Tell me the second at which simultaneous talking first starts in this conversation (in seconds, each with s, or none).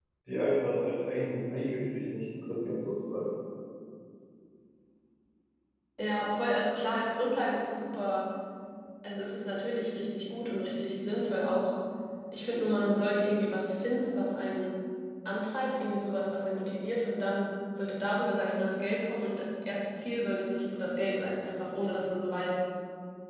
none